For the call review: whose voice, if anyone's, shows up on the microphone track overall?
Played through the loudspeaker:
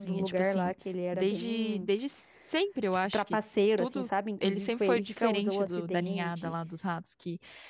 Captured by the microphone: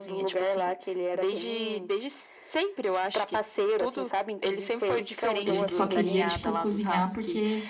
both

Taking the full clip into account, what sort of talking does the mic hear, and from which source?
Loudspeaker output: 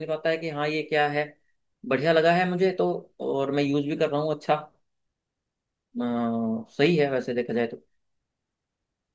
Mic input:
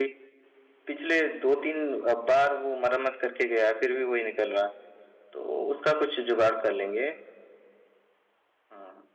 user only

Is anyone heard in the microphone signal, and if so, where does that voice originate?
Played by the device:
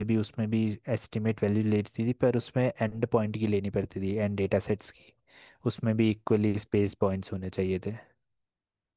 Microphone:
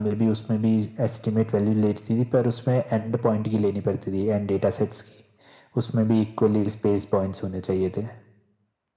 echo only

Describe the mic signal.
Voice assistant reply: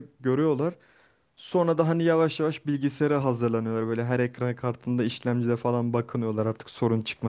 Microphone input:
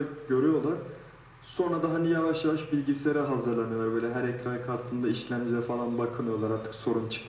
echo only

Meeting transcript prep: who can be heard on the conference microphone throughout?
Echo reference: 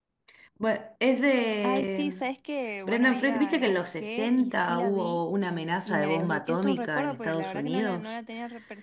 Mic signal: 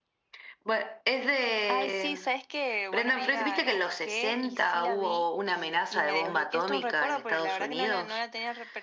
echo only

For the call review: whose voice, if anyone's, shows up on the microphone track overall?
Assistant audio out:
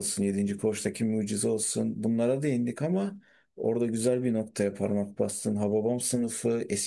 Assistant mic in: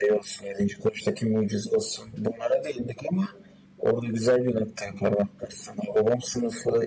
echo only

